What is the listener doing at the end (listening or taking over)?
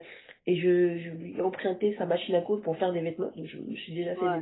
listening